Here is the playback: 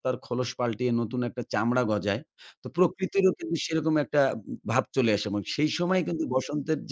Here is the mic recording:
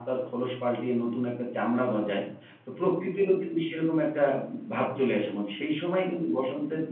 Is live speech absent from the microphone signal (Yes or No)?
No